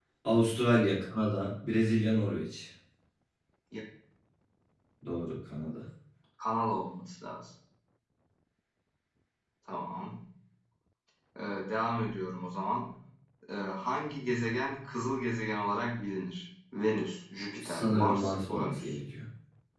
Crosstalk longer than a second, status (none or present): present